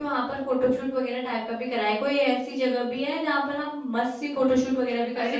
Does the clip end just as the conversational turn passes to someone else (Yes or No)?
Yes